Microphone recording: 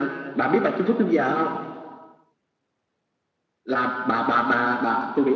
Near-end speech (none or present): none